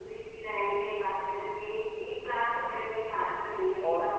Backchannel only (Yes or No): Yes